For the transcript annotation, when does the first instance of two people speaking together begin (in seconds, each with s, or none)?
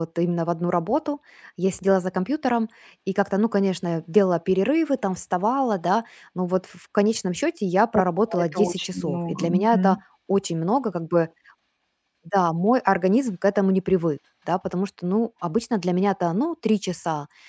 8.3 s